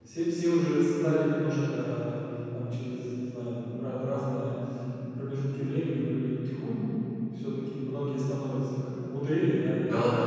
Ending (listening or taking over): listening